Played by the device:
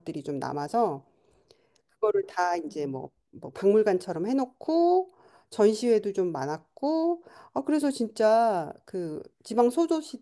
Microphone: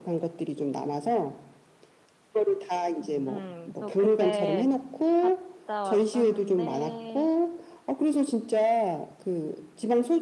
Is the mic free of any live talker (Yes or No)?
No